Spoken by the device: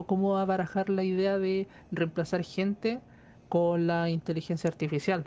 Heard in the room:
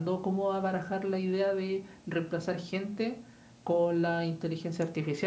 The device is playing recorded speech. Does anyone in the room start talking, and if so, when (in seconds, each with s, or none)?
none